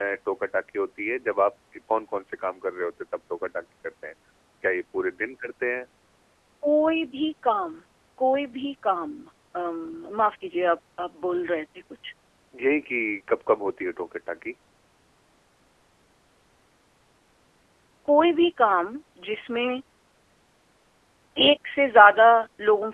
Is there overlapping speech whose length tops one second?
No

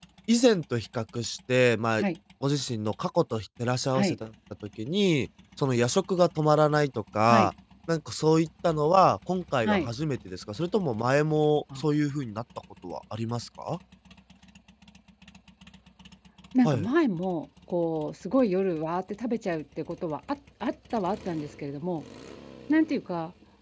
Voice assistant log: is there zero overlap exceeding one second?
Yes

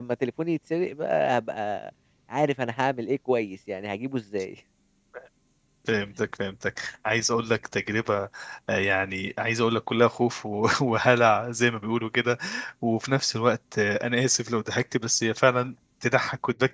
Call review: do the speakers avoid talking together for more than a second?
Yes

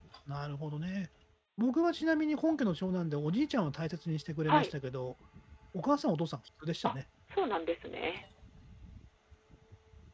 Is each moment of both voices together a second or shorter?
Yes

